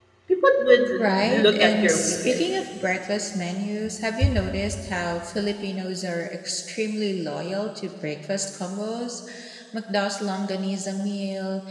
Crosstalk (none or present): present